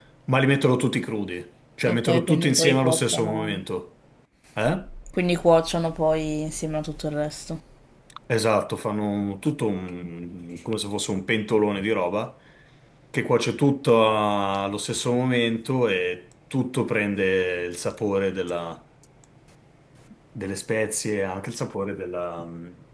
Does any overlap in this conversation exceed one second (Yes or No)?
Yes